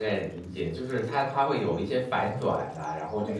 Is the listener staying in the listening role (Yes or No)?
No